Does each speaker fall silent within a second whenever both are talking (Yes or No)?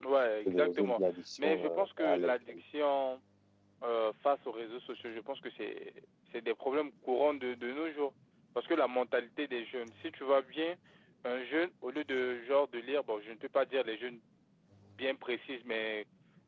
No